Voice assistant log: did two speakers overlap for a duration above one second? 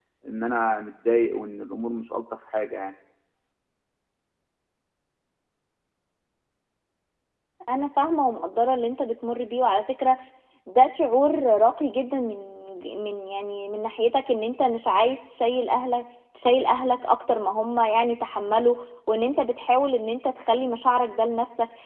No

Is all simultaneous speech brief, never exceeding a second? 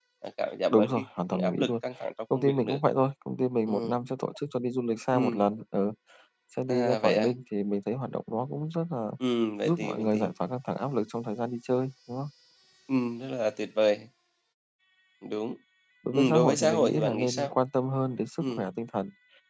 No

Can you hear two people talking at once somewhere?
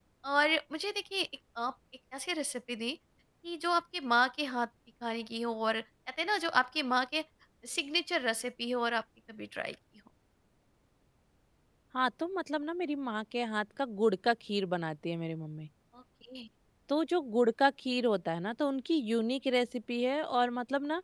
No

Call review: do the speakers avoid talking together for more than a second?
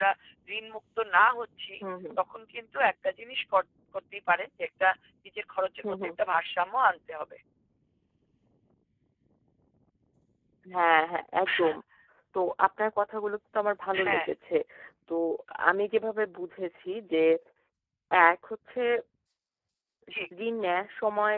Yes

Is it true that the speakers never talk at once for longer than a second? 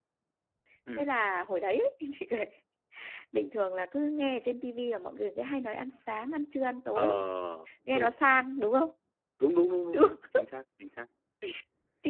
Yes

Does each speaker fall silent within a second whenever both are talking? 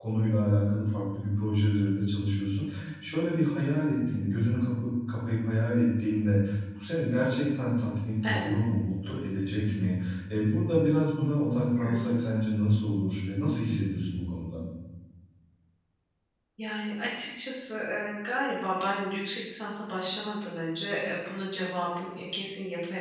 Yes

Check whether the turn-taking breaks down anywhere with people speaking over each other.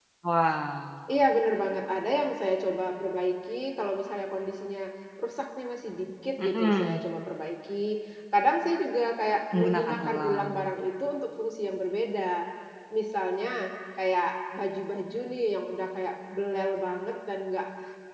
Yes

